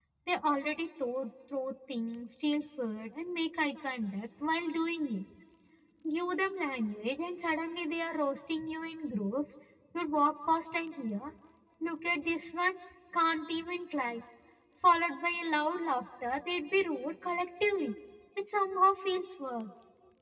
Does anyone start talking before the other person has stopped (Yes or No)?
No